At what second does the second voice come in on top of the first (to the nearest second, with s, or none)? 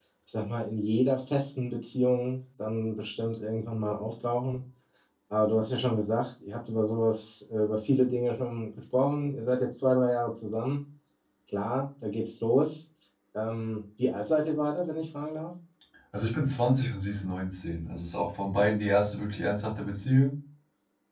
none